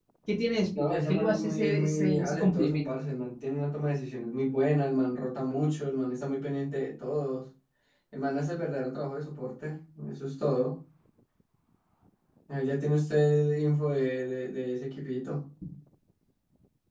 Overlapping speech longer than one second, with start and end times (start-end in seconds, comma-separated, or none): 0.8-2.9